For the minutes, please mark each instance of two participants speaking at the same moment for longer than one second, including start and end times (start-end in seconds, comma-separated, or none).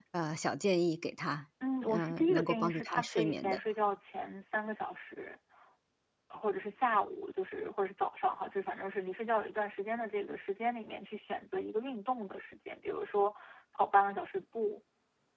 1.9-3.6